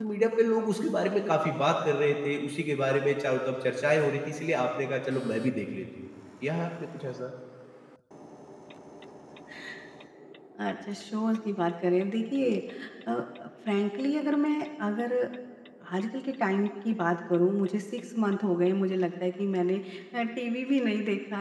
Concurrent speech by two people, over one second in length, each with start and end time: none

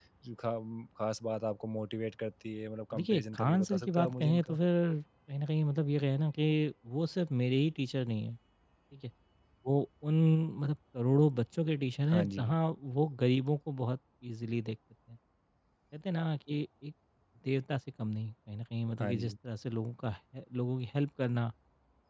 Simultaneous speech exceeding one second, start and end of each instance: 3.0-4.6

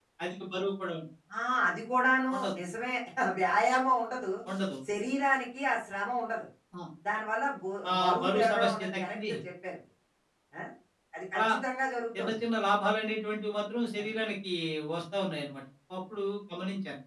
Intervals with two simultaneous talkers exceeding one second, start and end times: 7.9-9.3

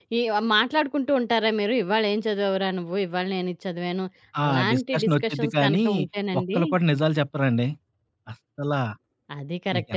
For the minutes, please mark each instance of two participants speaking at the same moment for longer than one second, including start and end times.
4.5-5.8

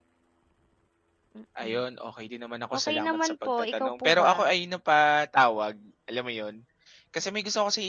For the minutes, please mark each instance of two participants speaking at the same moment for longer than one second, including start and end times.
2.9-4.3

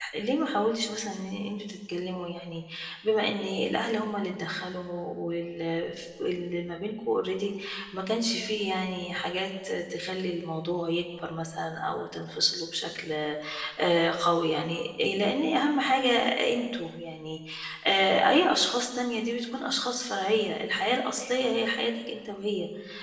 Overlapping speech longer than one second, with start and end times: none

